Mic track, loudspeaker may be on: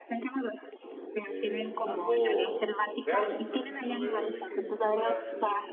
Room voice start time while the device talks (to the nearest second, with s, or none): 1 s